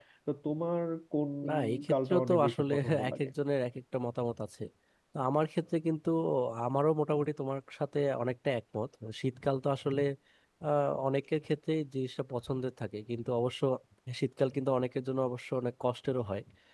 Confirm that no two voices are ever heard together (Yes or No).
No